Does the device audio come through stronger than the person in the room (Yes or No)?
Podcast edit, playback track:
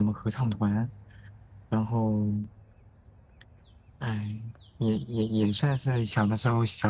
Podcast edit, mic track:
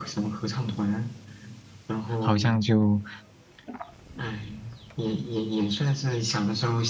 No